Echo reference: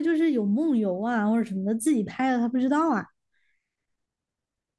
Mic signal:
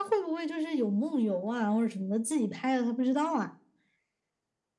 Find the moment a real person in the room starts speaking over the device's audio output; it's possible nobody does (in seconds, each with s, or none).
none